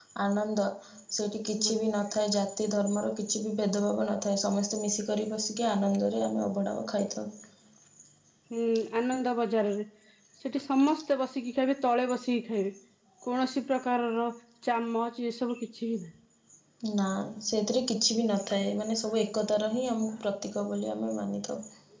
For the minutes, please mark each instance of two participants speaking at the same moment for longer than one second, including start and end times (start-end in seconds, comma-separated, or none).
none